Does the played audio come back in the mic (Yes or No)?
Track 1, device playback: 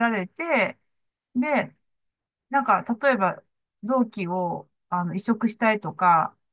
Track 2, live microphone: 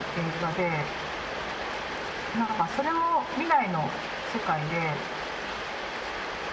No